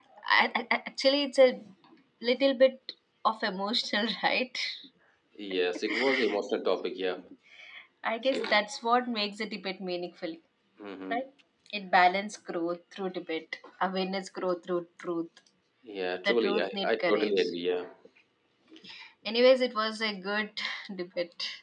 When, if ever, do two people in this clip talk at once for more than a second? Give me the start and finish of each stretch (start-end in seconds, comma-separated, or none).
16.2-17.5